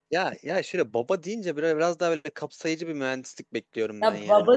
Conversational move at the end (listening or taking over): taking over